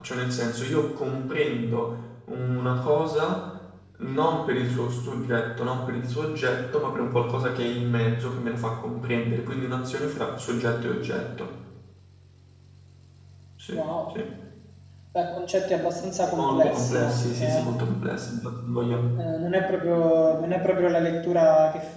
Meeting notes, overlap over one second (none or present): present